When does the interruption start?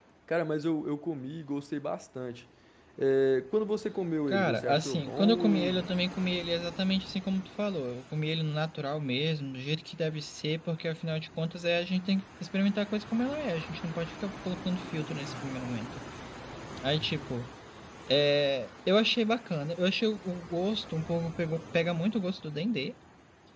4.3 s

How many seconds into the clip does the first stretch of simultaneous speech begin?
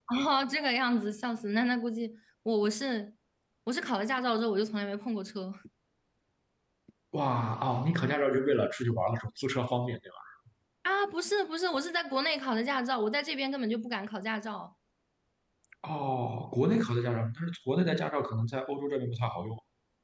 none

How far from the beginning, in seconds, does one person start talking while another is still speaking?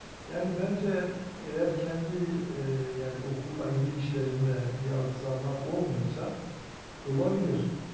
none

